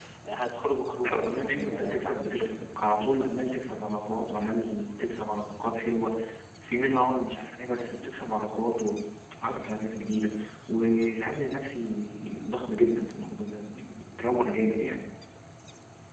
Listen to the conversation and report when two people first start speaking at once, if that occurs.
1.0 s

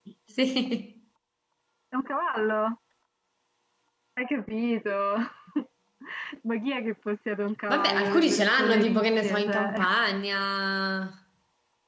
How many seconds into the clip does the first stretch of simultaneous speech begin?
7.7 s

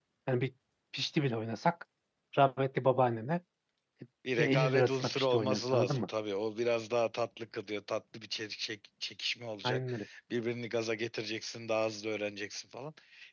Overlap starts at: 4.4 s

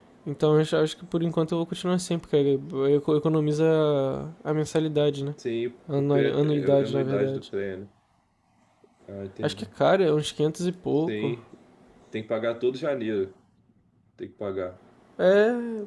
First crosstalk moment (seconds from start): 6.1 s

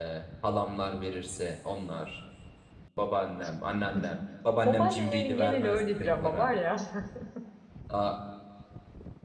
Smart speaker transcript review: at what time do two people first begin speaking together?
4.7 s

